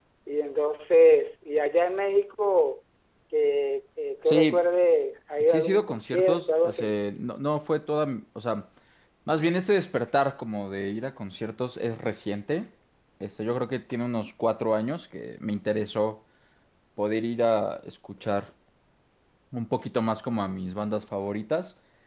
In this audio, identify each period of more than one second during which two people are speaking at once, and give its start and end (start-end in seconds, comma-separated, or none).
5.4-7.0